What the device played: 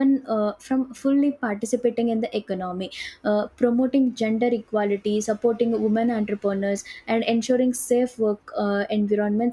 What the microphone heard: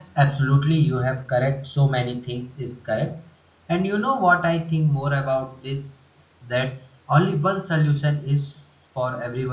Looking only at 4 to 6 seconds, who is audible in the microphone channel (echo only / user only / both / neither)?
user only